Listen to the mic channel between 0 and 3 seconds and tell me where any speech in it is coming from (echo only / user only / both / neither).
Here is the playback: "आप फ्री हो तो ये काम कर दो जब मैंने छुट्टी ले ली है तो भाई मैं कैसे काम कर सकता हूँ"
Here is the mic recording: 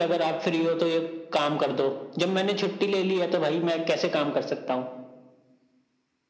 echo only